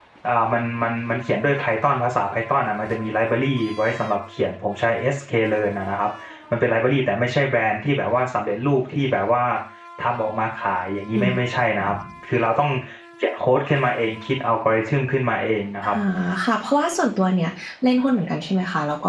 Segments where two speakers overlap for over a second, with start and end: none

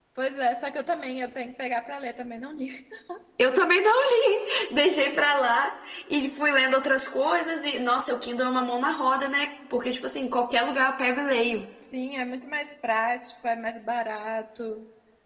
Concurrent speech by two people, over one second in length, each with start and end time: none

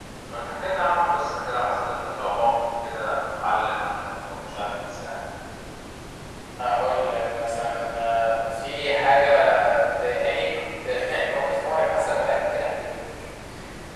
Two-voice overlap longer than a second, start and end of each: none

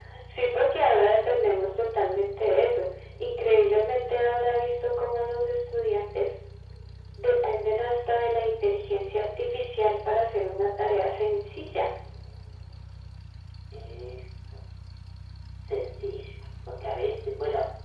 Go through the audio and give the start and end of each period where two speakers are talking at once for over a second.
none

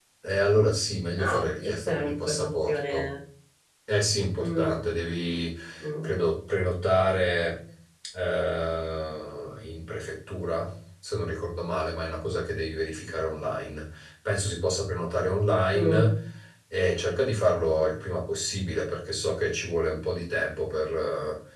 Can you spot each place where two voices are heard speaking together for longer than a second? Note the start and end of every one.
1.2-3.1

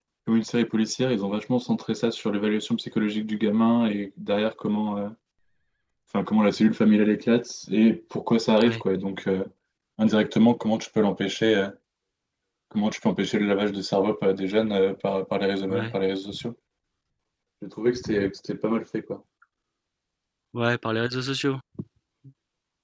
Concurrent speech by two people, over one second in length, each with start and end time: none

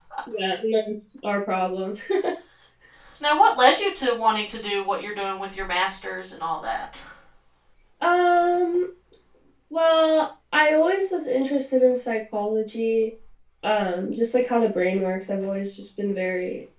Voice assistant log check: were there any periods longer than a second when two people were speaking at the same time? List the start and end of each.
none

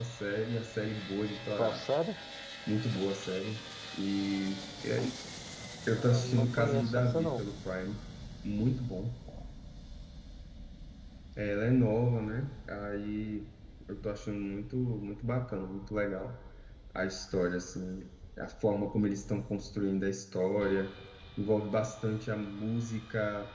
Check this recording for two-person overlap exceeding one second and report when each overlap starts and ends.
5.9-7.4

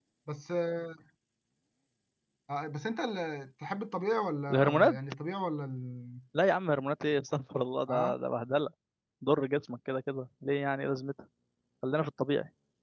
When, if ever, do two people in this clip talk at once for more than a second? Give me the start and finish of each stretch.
none

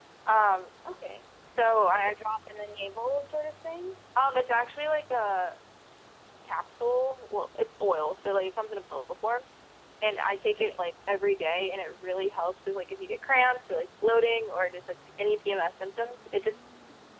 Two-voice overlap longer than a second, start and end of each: none

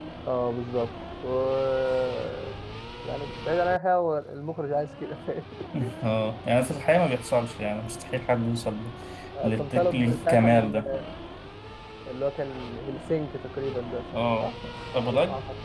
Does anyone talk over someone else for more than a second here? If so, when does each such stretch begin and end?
9.4-10.7

